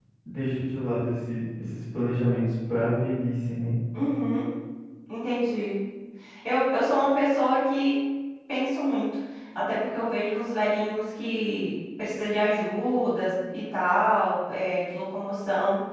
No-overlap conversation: Yes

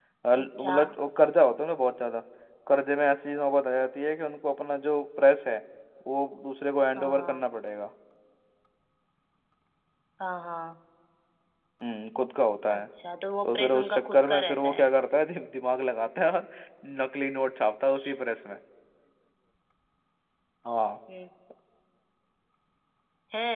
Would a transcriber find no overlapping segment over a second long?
No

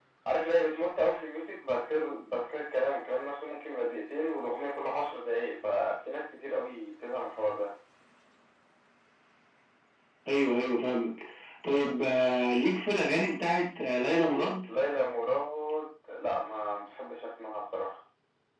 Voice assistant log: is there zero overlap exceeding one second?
Yes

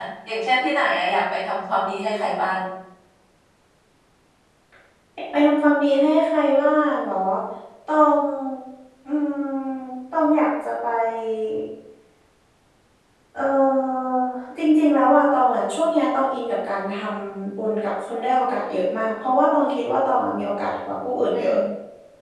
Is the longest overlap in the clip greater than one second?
No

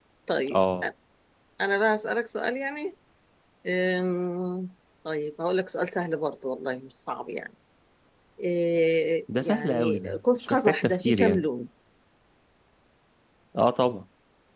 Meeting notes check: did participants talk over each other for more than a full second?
Yes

